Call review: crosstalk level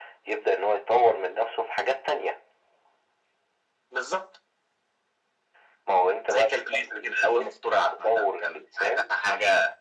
present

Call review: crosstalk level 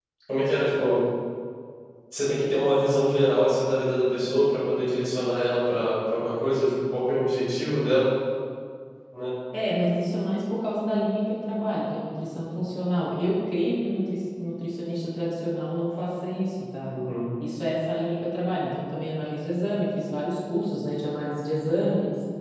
none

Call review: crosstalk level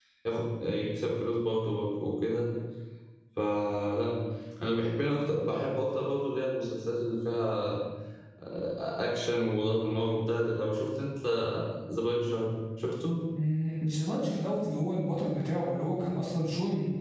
none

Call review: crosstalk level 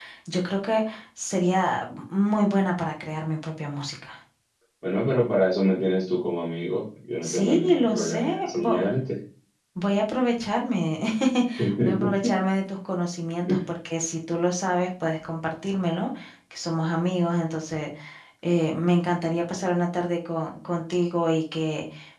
present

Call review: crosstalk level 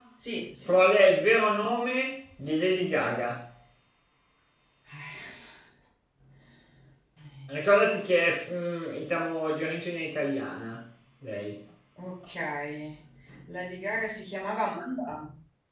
none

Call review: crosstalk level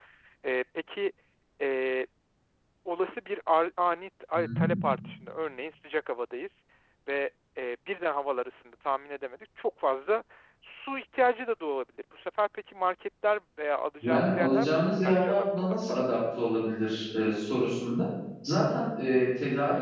present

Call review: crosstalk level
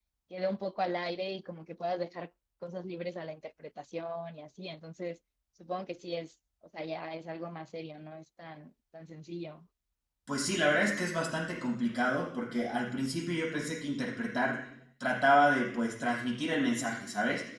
none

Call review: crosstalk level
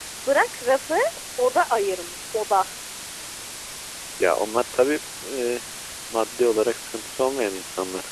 none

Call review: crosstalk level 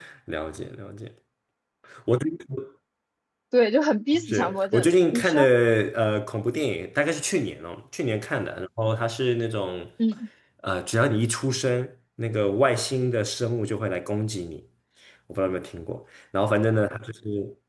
present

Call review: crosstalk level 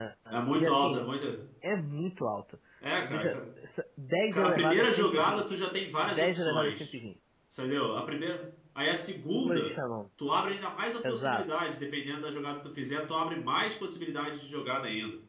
present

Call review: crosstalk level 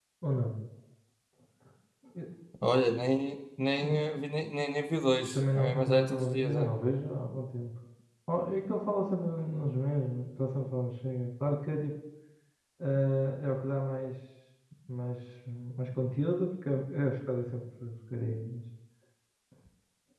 present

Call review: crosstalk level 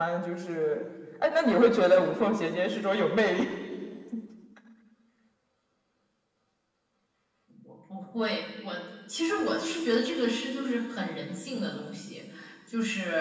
none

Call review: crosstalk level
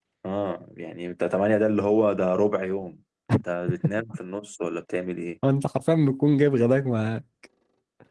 none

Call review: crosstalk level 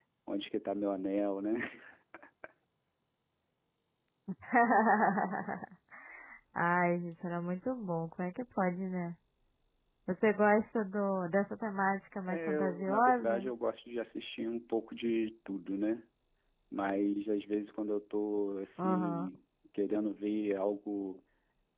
present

